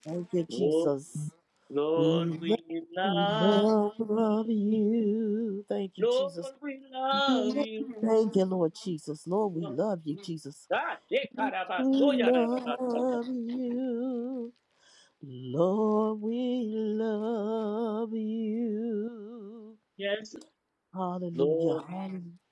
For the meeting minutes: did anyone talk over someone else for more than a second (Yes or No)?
Yes